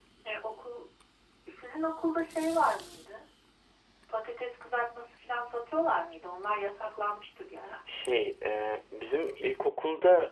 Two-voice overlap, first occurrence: none

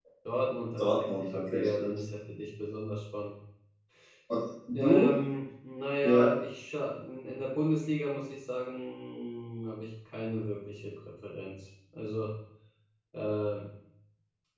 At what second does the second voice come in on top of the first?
1 s

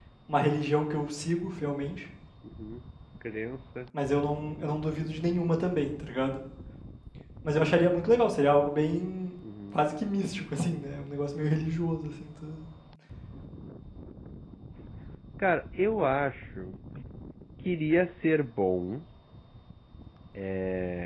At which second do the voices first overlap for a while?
none

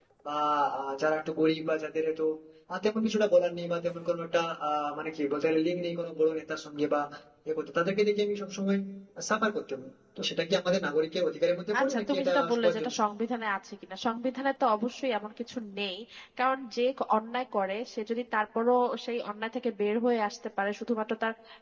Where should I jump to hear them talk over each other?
12 s

